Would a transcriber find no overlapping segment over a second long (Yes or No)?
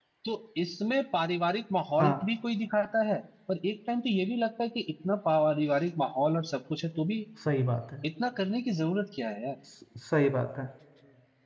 Yes